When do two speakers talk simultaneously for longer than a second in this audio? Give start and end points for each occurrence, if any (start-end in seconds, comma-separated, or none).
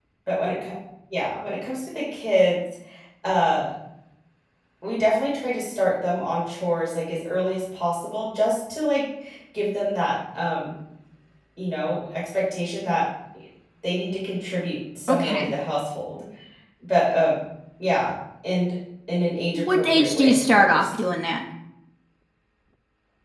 19.6-20.8